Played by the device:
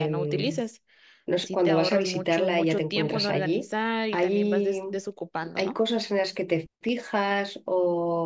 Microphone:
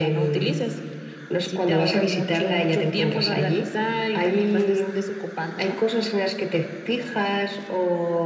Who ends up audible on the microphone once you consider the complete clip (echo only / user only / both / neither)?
echo only